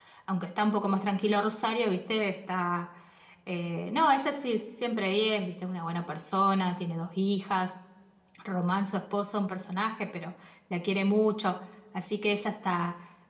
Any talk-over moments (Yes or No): No